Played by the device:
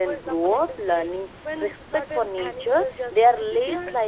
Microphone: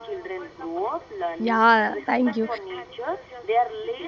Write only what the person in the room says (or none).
yeah thank you